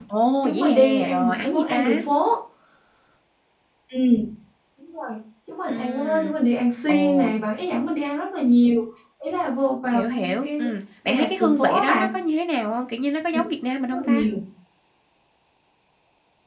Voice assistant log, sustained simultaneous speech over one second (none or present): present